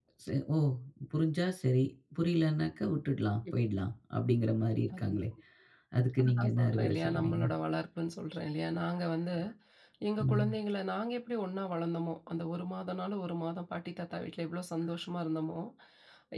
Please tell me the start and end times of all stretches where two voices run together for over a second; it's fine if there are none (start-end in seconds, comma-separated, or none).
6.2-7.4